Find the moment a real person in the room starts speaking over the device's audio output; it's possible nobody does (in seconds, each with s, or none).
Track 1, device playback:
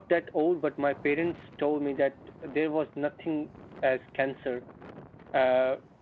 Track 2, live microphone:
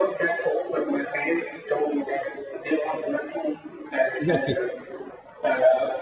4.2 s